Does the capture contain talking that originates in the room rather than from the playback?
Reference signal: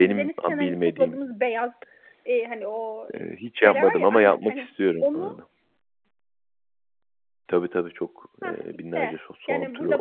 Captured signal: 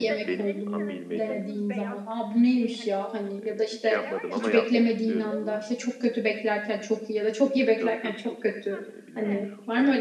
Yes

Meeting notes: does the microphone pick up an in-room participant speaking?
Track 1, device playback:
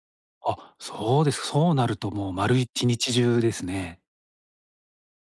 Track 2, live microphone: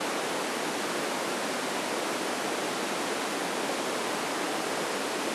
No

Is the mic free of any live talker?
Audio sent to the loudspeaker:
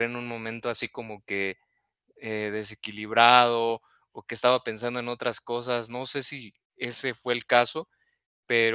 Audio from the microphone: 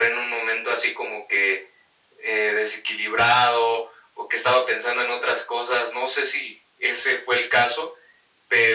Yes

